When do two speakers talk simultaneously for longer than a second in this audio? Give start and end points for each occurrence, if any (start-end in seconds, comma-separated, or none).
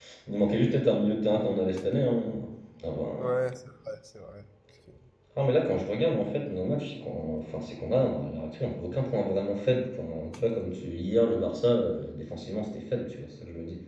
none